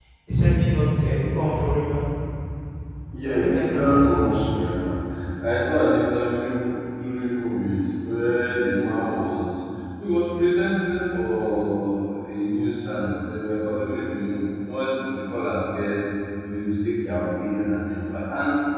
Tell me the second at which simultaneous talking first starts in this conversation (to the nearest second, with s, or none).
3 s